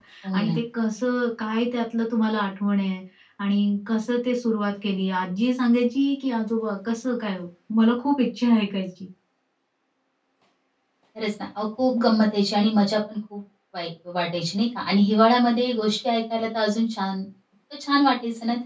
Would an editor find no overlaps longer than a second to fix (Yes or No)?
Yes